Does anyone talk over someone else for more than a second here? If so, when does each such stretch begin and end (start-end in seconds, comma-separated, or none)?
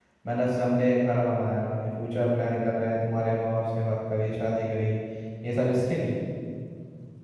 none